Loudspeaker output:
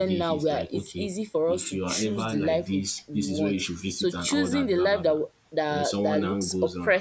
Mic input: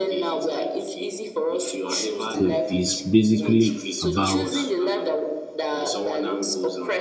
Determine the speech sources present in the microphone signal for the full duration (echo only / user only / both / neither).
both